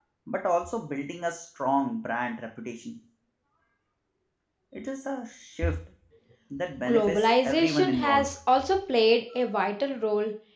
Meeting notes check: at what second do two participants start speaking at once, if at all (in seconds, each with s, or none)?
6.9 s